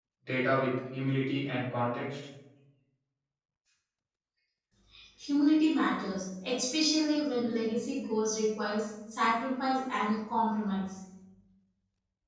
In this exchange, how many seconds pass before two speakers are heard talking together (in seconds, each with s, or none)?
none